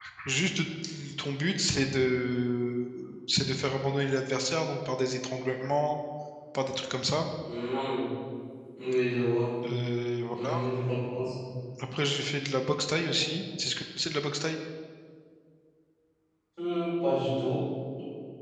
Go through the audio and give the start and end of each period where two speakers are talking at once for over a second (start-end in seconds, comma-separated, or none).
none